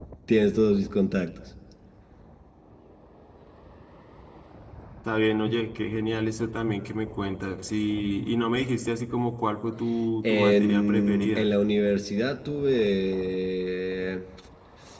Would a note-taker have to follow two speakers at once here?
Yes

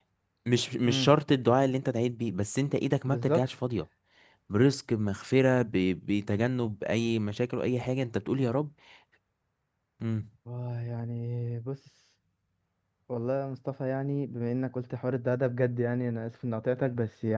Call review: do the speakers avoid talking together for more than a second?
Yes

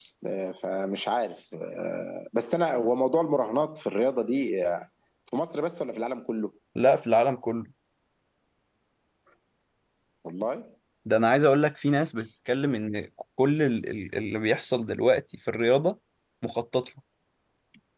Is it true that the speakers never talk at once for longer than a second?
Yes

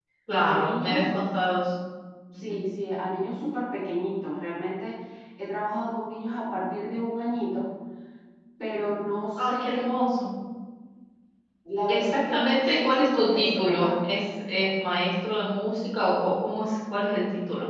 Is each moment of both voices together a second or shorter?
No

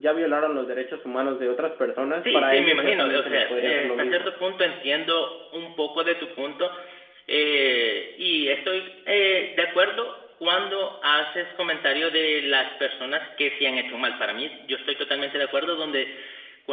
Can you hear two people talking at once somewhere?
Yes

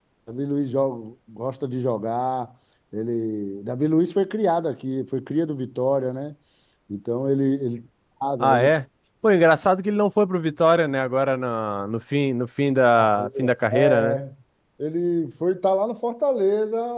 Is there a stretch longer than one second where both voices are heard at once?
No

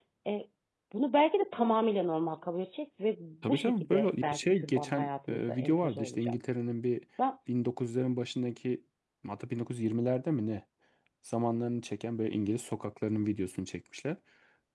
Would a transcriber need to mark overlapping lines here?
Yes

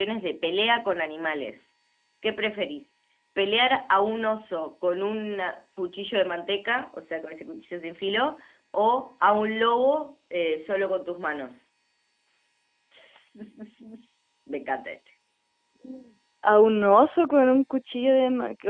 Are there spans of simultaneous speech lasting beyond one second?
No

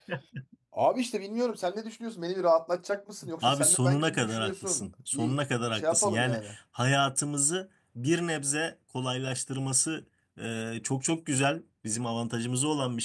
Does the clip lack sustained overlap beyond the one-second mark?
No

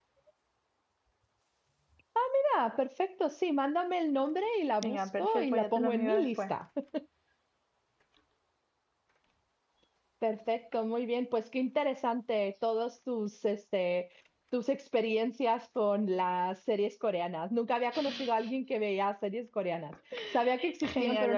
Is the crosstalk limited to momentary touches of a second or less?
No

